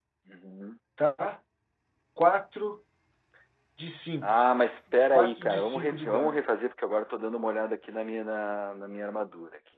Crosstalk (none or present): present